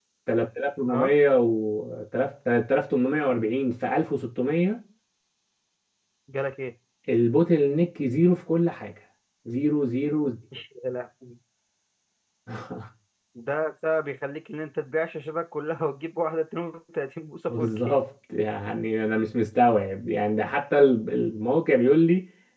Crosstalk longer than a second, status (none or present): none